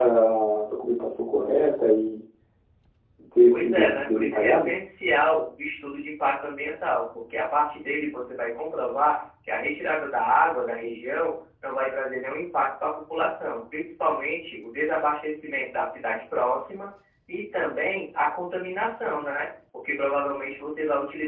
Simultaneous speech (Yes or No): Yes